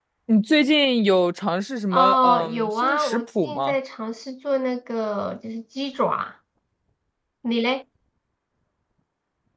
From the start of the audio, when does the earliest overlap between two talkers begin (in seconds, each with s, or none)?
1.9 s